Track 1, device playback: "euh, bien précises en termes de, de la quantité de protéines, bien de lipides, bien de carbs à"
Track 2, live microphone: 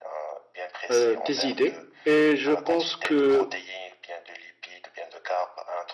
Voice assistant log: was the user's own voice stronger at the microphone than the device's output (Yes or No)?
Yes